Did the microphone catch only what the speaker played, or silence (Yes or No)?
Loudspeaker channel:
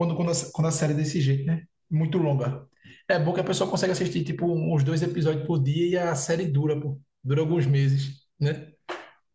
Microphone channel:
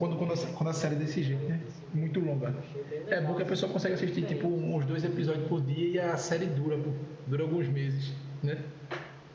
No